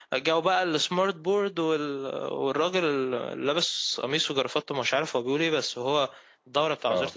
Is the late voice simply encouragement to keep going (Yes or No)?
Yes